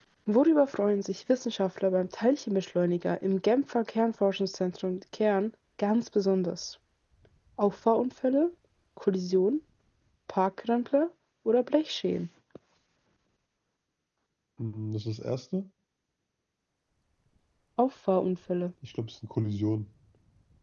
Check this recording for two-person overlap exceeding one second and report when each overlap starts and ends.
none

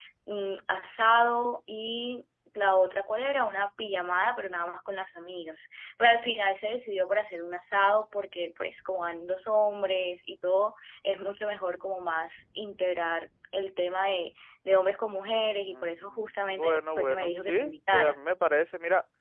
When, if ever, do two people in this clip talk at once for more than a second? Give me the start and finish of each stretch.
15.7-18.2

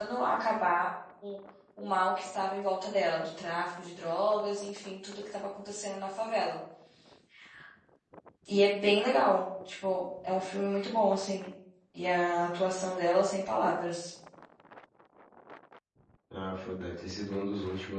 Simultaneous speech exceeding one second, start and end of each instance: none

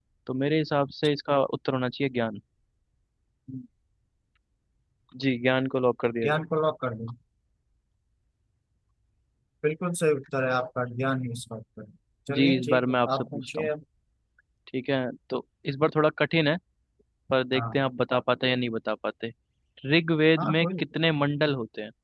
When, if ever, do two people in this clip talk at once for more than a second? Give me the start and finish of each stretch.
12.3-13.7

